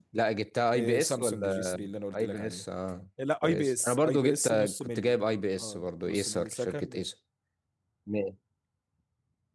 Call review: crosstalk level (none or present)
present